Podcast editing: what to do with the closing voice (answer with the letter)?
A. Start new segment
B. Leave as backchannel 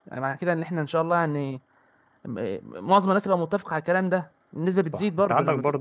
A